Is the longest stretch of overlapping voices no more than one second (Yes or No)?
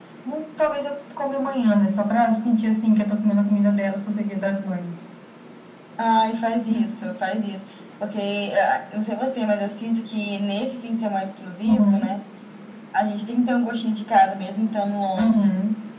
Yes